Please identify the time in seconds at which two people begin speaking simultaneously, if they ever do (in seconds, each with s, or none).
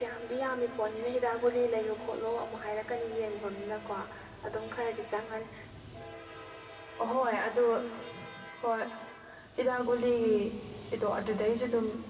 none